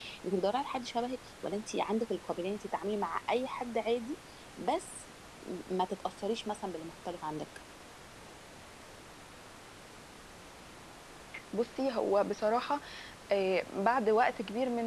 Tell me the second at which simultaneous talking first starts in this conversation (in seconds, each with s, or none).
none